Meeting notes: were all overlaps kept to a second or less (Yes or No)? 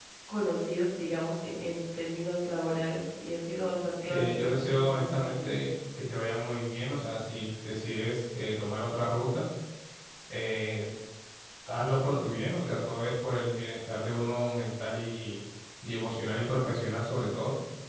No